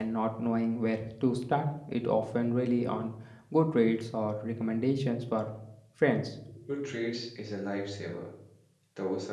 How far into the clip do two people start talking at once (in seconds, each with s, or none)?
none